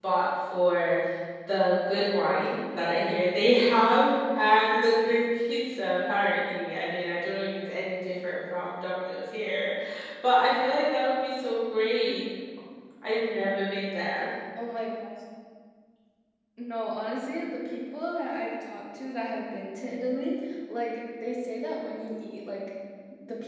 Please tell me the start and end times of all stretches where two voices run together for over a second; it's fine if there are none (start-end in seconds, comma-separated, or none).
none